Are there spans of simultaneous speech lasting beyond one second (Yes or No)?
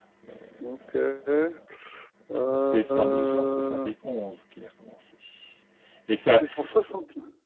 Yes